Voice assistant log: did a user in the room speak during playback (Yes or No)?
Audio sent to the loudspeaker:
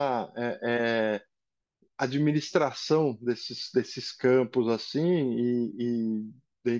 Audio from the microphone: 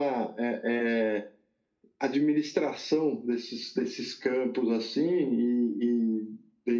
No